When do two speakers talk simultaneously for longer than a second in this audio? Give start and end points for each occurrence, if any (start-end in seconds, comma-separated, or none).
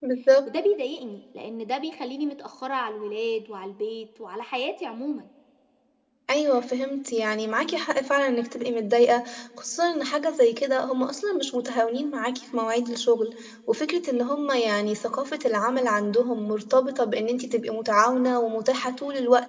none